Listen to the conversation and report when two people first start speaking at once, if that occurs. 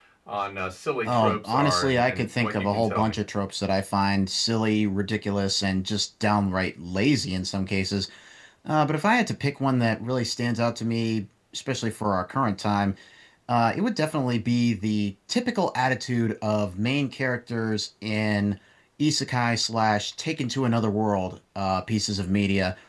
1 s

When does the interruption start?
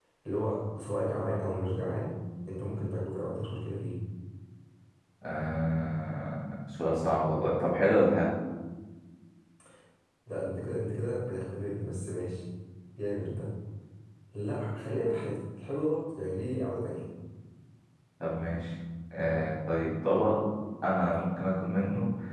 none

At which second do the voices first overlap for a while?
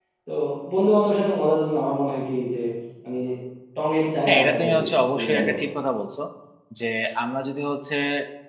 4 s

